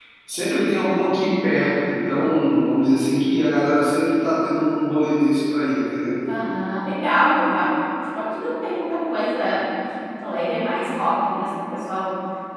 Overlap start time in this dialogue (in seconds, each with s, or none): none